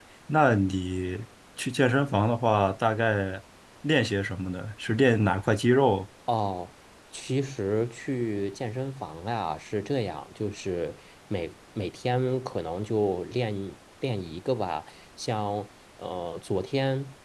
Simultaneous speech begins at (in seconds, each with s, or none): none